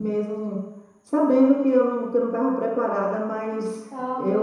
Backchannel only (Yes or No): Yes